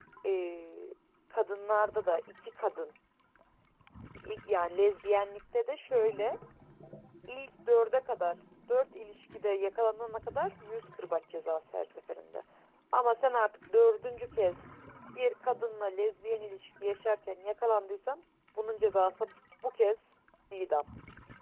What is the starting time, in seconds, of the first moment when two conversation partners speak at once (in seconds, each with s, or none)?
none